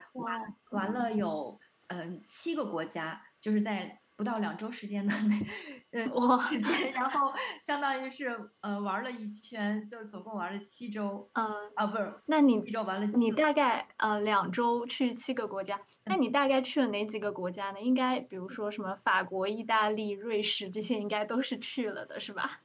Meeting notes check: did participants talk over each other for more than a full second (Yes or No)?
No